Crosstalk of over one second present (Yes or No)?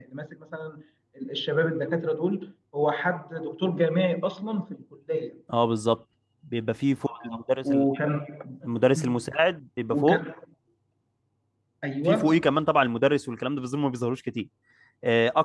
No